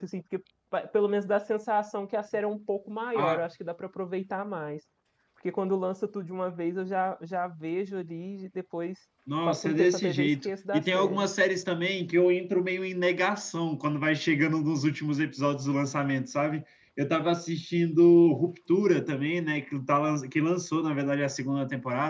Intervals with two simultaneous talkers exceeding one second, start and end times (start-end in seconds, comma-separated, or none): 9.4-11.2